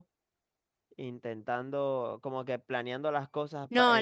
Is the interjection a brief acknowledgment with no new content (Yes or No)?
No